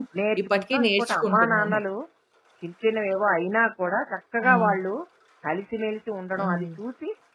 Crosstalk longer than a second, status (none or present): present